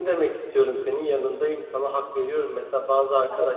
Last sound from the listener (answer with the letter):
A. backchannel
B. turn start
A